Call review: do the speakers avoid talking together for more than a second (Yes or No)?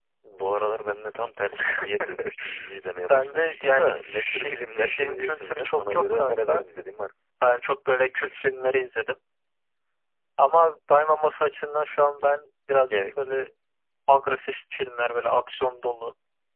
No